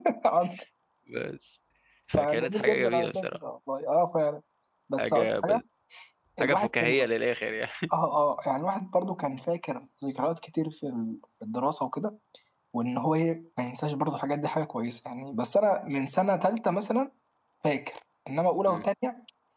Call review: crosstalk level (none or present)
present